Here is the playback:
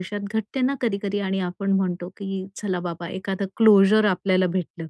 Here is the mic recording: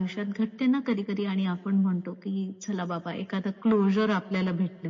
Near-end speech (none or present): none